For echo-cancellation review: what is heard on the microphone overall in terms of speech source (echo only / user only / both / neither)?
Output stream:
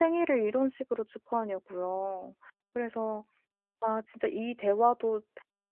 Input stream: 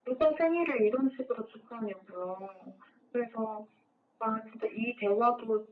echo only